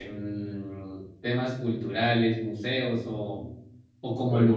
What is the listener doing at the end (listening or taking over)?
listening